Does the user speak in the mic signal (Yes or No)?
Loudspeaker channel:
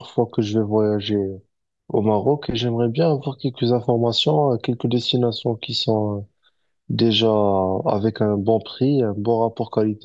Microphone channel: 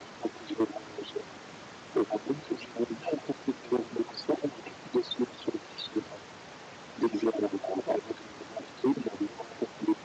No